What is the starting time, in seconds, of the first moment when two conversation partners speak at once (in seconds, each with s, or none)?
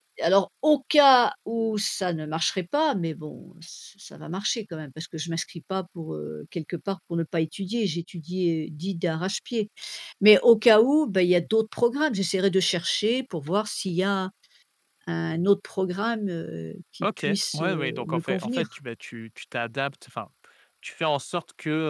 17.0 s